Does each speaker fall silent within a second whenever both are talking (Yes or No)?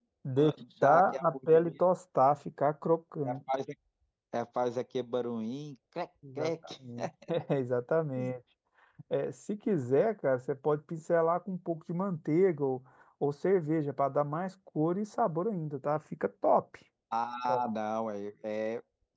No